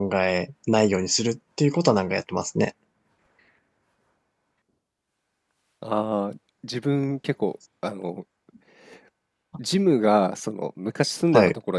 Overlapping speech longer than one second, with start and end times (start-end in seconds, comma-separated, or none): none